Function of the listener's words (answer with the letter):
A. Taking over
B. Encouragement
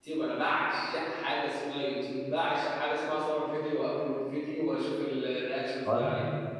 A